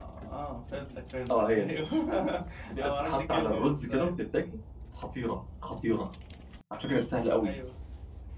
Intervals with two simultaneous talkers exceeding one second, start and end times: 2.8-4.1

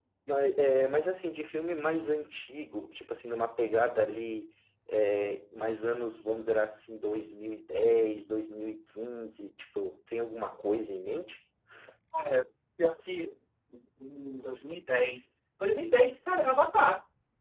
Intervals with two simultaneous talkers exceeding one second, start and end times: none

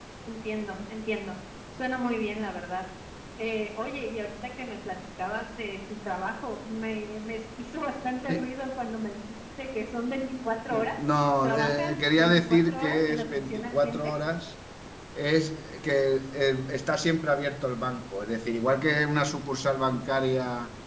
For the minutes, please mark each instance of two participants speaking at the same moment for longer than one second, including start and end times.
11.4-14.1

